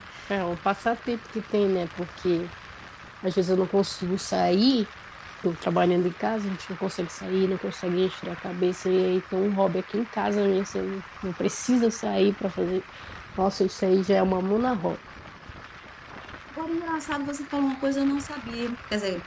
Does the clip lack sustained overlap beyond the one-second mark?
Yes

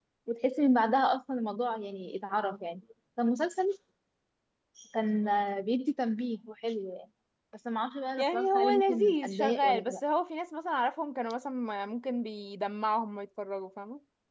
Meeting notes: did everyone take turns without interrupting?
No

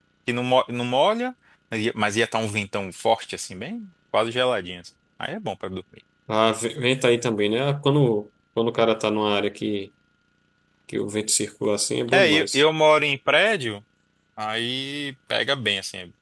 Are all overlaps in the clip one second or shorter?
Yes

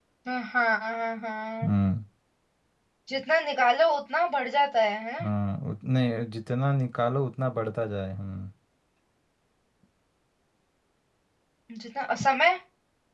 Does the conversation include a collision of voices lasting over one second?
No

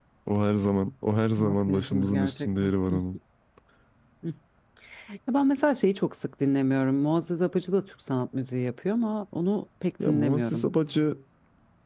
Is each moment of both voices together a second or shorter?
No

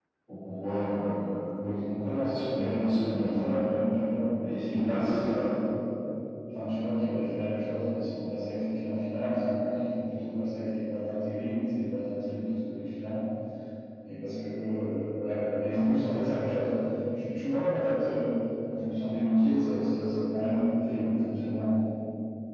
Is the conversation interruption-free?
No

